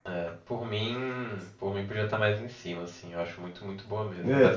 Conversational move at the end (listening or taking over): taking over